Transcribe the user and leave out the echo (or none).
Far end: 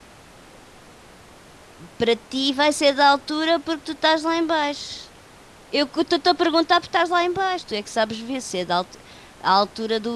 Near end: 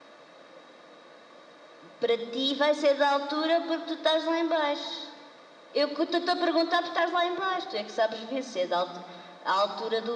none